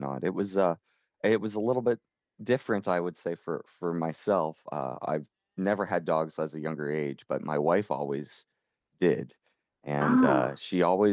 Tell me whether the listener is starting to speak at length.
No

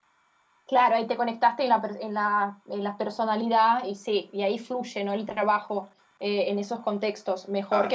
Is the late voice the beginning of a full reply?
No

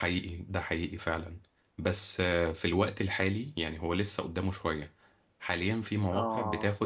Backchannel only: Yes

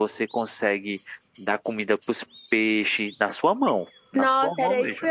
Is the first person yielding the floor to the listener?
Yes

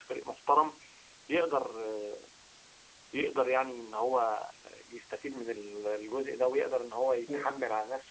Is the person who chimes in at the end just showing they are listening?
Yes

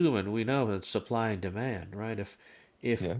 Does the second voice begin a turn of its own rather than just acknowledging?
No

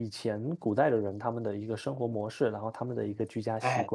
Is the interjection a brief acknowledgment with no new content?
No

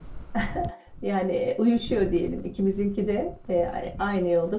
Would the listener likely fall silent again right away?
Yes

